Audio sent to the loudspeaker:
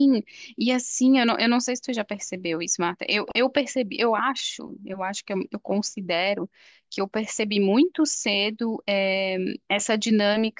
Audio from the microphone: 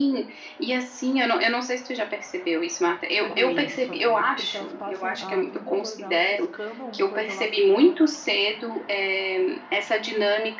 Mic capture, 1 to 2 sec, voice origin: echo only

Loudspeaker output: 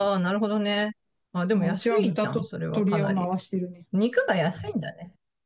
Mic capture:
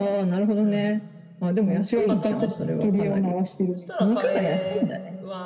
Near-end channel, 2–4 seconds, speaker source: both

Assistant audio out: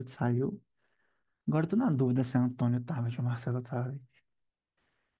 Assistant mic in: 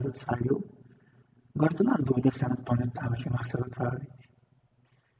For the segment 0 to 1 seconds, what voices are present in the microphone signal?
echo only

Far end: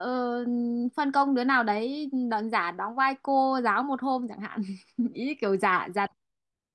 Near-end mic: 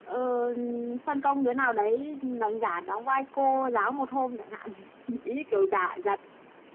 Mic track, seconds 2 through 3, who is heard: echo only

